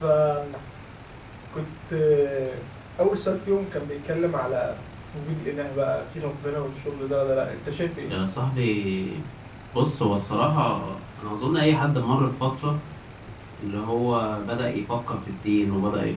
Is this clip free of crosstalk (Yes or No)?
Yes